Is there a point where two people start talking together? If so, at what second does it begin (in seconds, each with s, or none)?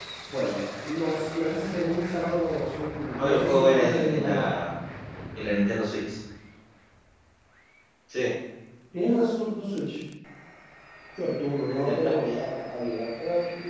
3.2 s